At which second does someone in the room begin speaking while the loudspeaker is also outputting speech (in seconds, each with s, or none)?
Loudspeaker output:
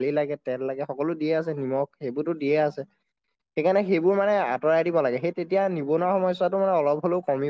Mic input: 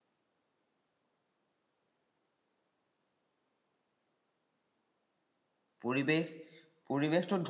5.8 s